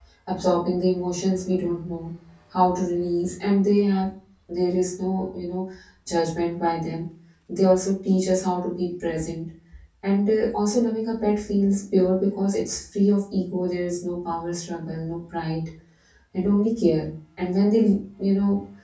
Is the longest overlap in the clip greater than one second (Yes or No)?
No